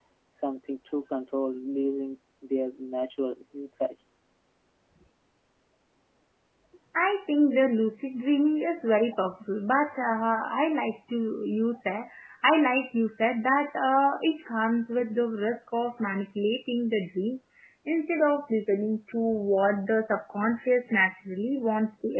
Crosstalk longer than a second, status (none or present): none